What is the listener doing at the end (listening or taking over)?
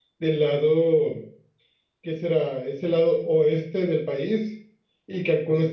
listening